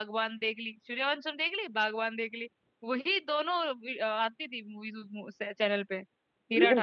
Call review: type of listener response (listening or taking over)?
taking over